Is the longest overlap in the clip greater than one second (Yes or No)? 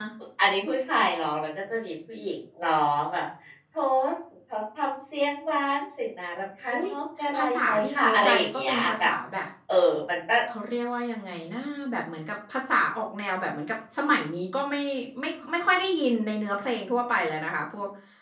Yes